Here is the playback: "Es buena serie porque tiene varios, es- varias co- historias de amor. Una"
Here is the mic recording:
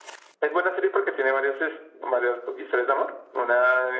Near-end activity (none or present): none